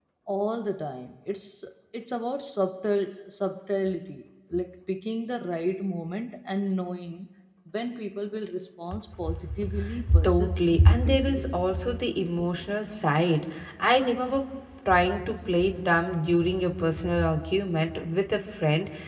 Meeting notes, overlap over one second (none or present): present